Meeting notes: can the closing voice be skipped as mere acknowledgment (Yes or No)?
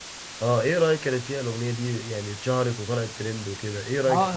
No